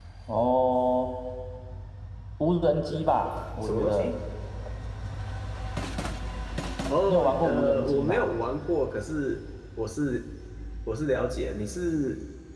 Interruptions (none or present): present